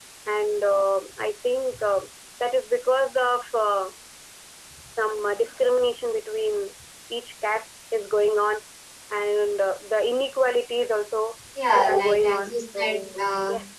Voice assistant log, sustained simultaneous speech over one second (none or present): present